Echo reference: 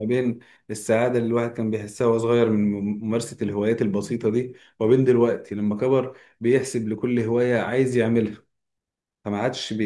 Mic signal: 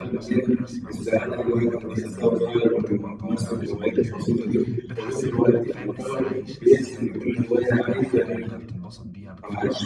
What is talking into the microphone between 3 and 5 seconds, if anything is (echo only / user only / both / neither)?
both